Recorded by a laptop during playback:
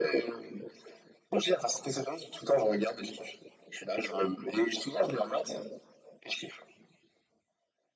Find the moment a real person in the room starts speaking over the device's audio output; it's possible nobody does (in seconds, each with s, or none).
none